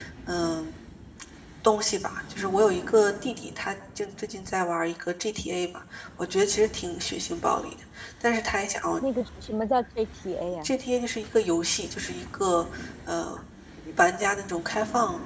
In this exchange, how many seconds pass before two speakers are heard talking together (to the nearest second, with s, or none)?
none